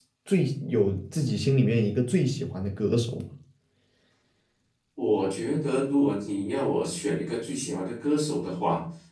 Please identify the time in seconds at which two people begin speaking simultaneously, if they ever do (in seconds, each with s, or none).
none